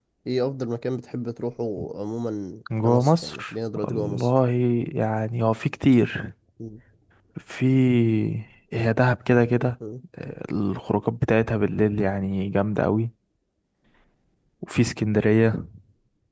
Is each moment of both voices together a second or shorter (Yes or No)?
No